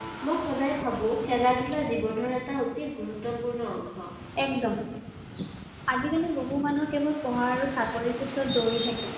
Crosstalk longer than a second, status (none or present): none